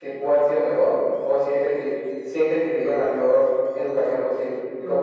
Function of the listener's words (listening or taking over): taking over